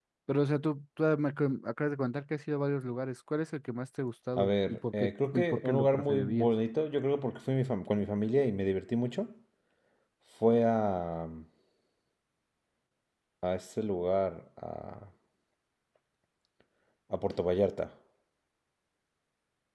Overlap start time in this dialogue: 4.4 s

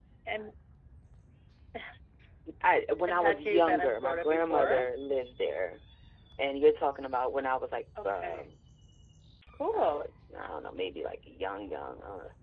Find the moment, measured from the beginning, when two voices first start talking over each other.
3.1 s

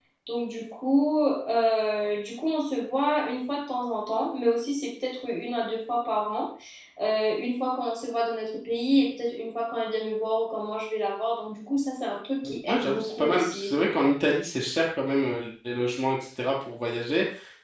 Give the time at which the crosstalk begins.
12.4 s

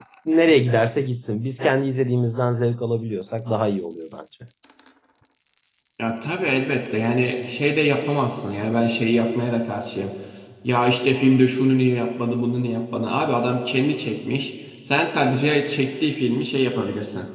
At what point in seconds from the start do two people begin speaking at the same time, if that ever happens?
none

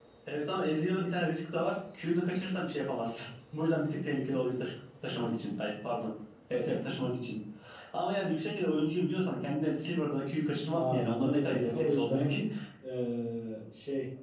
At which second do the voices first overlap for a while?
10.7 s

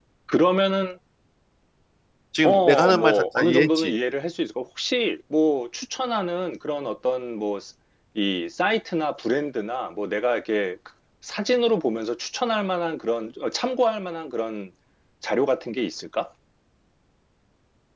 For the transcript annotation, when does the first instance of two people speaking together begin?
2.4 s

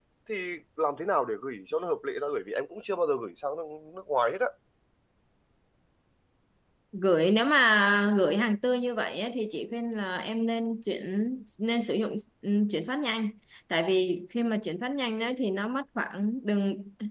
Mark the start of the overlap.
none

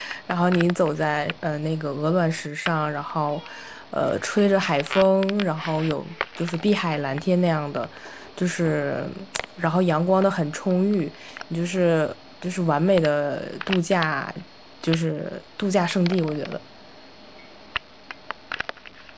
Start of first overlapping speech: none

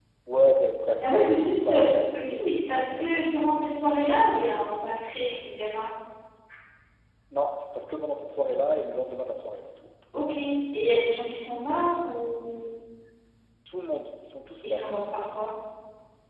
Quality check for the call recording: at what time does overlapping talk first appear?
1.0 s

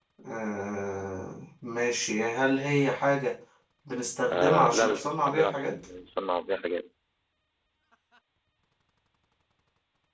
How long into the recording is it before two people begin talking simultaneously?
4.3 s

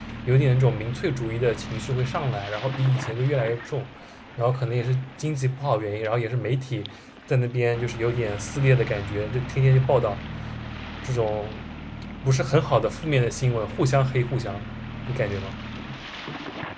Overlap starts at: none

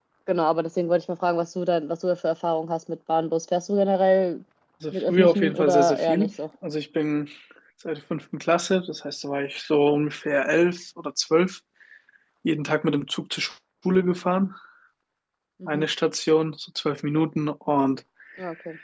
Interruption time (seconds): 4.9 s

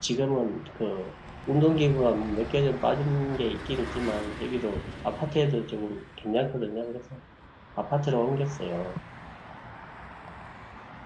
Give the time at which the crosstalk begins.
none

